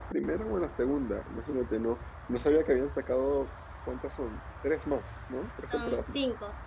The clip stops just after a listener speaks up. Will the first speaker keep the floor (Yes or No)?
No